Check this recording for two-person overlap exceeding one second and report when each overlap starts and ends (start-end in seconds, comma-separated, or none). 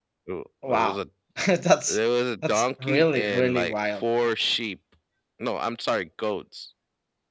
2.5-4.0